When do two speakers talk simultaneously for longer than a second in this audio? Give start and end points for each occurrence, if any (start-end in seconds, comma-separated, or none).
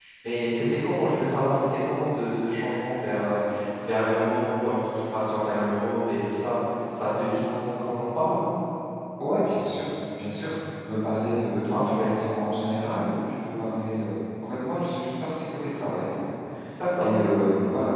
none